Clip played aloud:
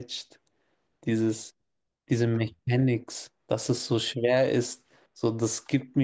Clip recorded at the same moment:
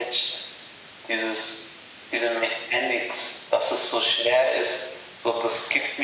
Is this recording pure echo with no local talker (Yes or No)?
Yes